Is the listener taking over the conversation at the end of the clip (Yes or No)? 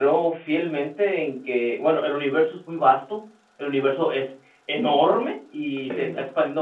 No